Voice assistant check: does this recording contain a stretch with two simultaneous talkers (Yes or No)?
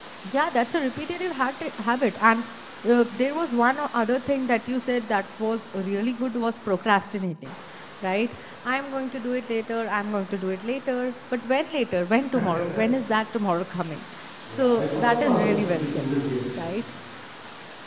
Yes